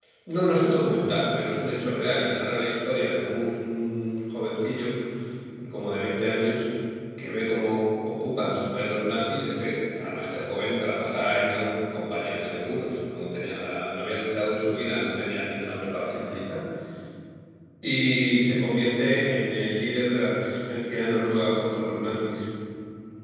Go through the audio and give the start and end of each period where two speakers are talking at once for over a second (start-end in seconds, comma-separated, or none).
none